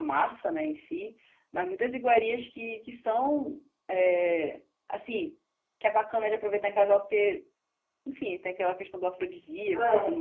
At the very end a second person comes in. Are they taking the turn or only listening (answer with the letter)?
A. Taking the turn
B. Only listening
A